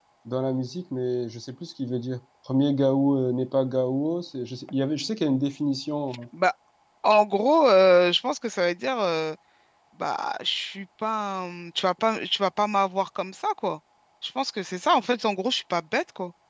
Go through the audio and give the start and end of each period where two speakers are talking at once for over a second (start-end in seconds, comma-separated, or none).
none